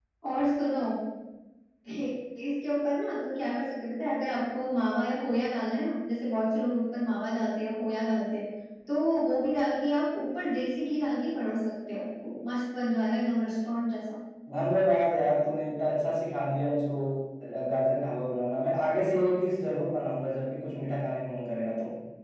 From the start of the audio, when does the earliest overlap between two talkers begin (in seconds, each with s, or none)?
none